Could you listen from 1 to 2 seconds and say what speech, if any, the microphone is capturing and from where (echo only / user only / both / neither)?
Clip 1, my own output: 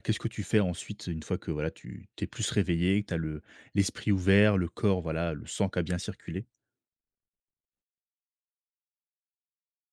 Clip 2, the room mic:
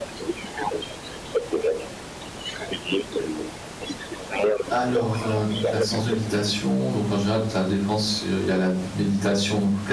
echo only